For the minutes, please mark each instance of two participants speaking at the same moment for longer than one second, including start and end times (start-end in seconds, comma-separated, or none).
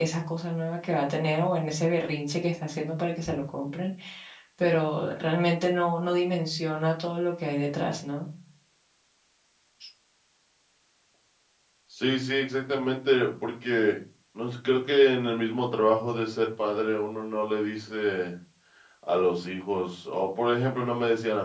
none